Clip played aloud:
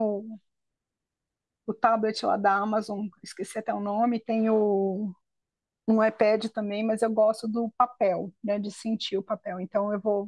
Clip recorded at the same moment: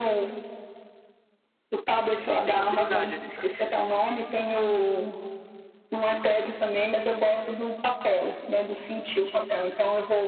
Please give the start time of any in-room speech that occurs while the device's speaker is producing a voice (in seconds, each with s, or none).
2.3 s